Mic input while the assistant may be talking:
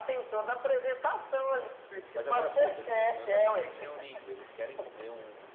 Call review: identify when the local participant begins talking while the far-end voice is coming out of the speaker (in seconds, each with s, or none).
2.1 s